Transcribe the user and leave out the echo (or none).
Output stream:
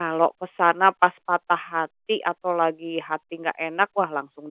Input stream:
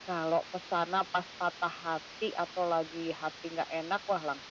none